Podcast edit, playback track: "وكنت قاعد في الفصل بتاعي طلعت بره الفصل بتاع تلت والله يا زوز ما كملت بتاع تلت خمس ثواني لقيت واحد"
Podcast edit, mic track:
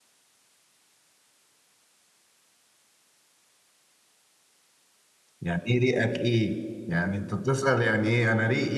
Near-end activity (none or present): present